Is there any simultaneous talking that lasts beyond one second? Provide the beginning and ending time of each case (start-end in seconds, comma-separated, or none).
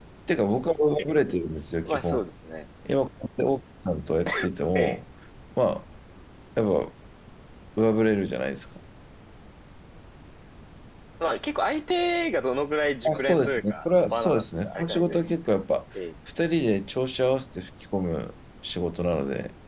13.1-15.2